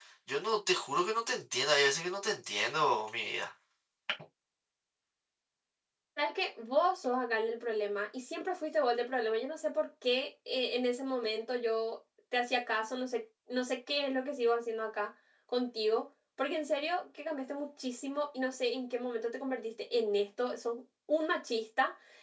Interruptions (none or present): none